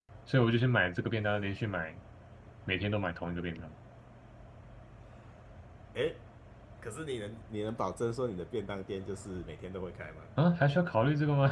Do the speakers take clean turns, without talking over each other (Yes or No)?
Yes